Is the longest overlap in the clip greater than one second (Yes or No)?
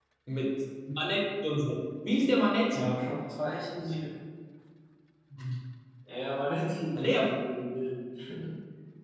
No